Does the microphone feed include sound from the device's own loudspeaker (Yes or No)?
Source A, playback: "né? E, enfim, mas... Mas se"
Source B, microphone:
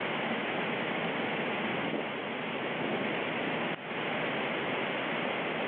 No